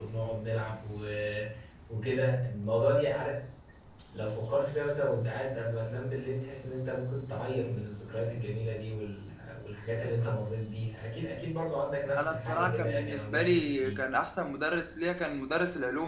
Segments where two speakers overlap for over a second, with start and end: 12.2-14.0

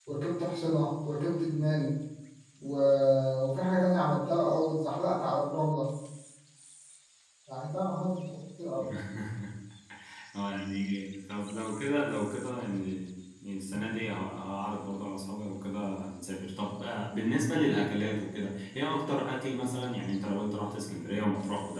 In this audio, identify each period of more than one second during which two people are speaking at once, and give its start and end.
none

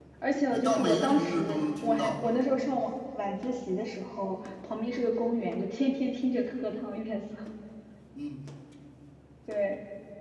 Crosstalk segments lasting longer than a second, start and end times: 0.5-2.2

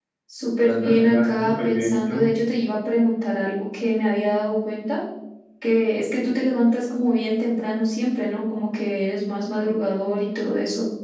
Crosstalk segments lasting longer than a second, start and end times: 0.6-2.3

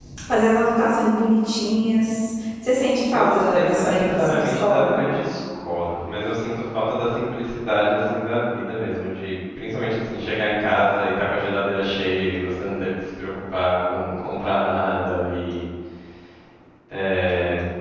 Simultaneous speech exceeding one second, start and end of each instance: 3.1-5.0

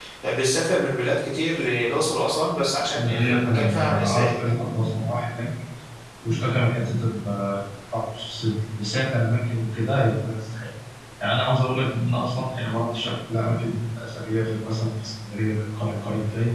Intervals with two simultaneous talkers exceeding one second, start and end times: 2.9-4.5

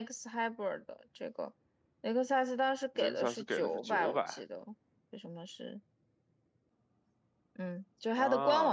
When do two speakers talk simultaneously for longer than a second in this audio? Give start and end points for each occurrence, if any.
3.0-4.4

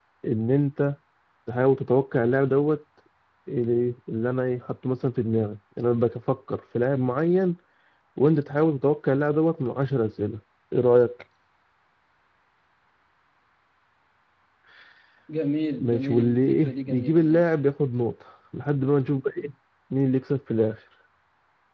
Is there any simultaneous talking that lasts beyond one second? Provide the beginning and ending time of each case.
15.8-17.4

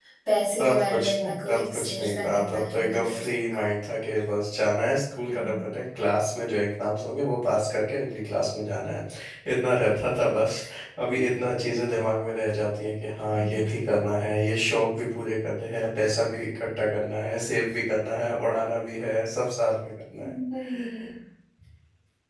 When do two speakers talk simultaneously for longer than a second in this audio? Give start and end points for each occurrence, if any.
0.6-3.3

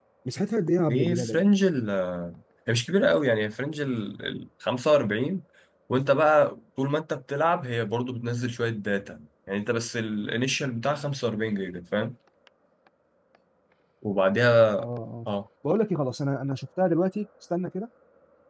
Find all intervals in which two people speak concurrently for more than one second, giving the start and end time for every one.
none

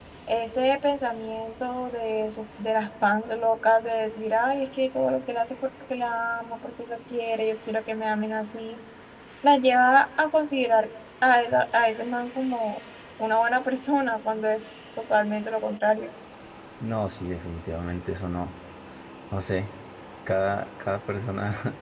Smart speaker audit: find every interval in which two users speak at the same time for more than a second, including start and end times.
none

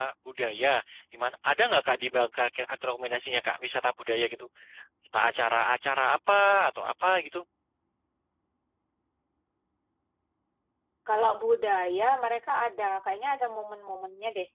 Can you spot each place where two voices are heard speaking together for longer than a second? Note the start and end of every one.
none

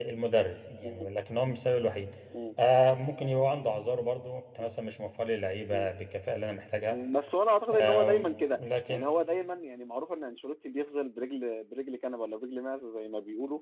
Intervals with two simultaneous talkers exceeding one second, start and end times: 7.8-9.0

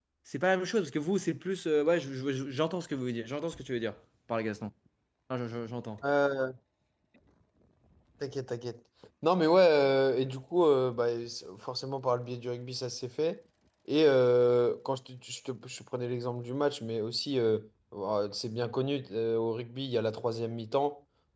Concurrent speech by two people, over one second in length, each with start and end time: none

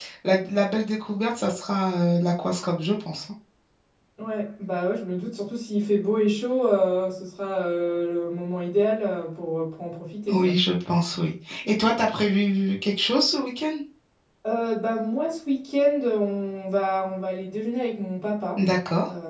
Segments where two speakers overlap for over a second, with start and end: none

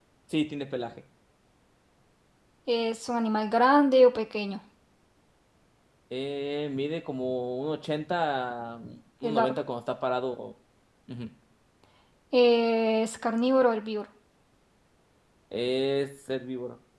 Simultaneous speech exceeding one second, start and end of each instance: none

